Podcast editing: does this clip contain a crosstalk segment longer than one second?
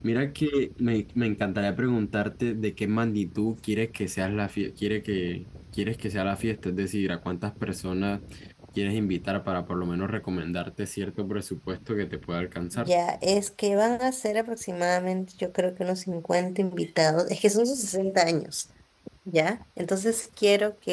No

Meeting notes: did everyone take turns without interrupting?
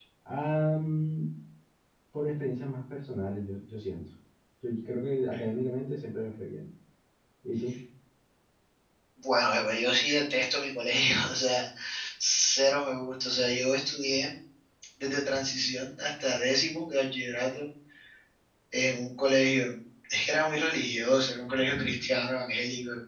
Yes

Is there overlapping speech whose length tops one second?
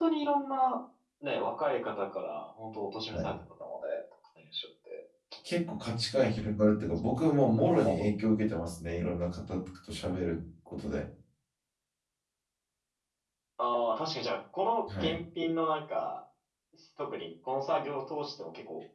No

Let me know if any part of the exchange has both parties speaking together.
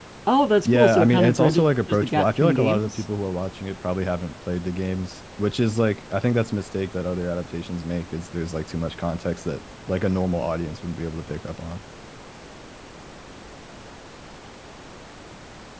Yes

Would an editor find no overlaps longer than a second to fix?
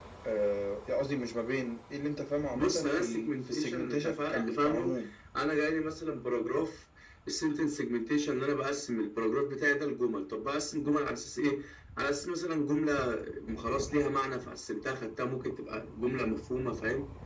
No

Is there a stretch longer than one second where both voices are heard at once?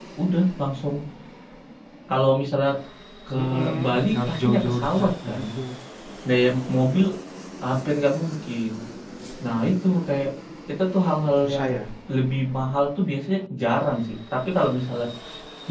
Yes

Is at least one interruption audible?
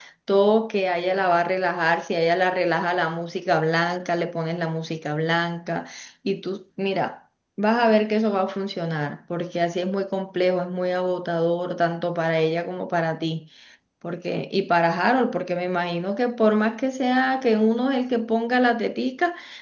No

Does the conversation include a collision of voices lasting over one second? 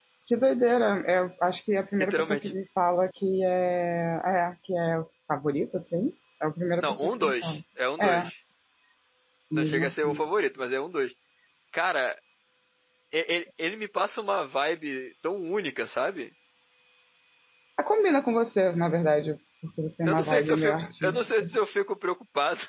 Yes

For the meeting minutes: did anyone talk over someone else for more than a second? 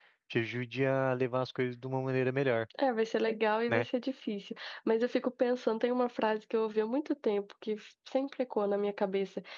No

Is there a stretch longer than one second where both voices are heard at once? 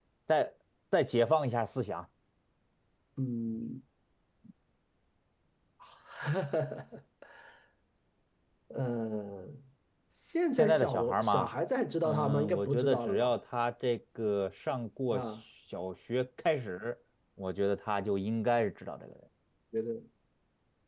Yes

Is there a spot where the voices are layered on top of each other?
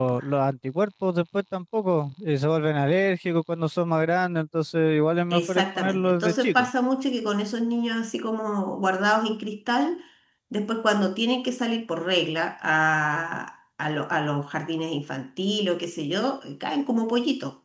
Yes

